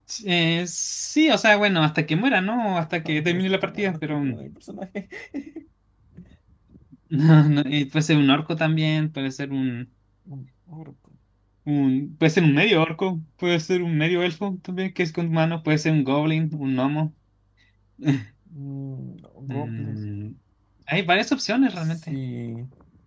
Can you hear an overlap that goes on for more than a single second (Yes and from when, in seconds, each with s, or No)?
Yes, from 3.0 s